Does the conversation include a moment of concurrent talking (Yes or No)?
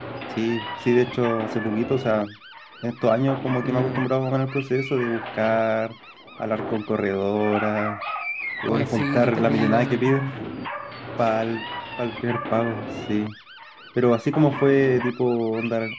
Yes